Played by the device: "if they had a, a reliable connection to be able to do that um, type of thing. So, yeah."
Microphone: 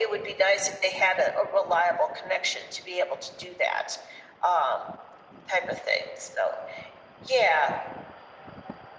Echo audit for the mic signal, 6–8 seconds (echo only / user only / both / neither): echo only